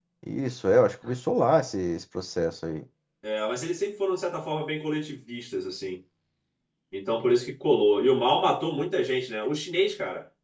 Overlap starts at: none

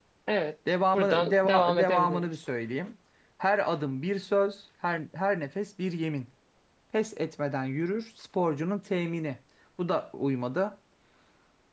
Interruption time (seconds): 1 s

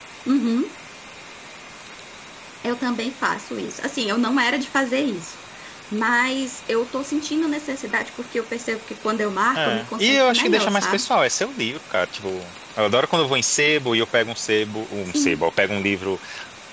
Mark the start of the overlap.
10 s

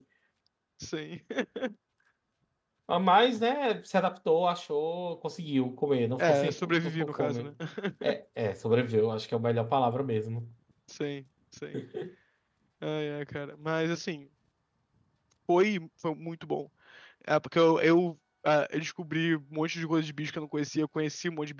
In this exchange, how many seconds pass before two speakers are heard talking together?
6 s

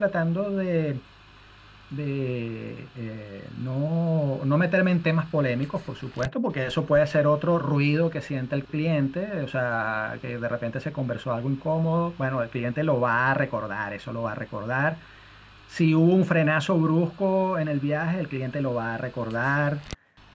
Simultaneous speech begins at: none

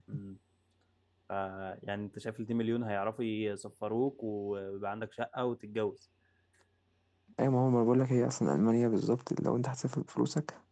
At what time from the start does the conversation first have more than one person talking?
none

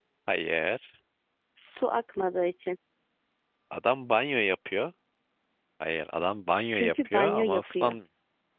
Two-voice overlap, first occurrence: 7 s

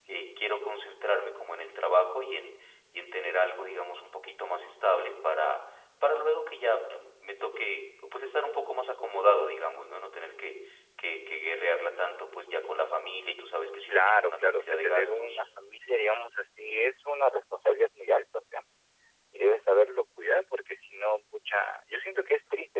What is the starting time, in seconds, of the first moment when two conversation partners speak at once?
14 s

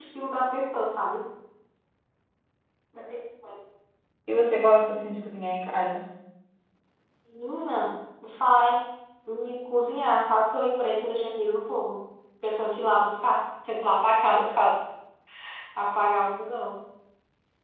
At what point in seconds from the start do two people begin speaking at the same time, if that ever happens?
none

